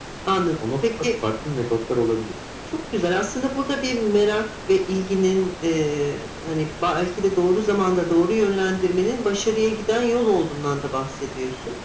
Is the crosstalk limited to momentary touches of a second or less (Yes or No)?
Yes